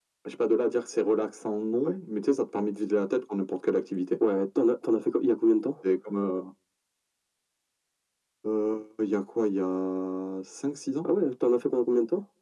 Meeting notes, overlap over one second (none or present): none